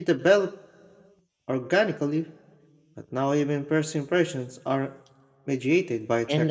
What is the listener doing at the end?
taking over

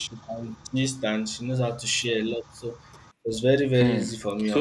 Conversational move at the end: taking over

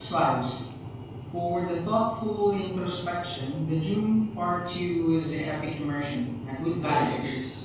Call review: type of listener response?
taking over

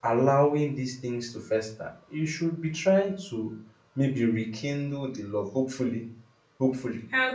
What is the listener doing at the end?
listening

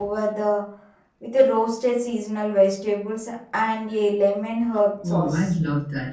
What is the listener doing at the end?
taking over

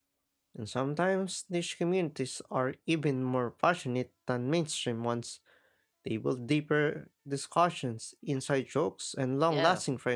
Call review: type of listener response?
taking over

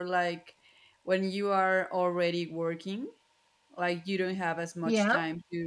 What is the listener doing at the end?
listening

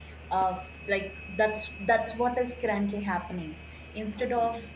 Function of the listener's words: listening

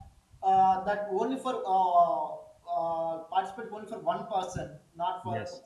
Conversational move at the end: listening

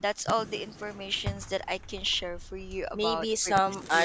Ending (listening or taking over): taking over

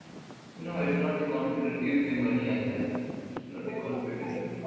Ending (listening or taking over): taking over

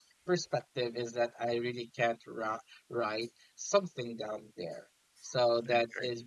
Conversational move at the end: listening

